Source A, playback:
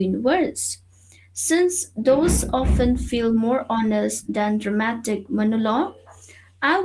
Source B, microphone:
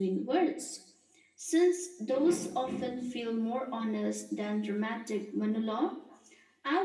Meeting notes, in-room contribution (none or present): none